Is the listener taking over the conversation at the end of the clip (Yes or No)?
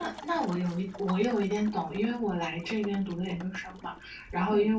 No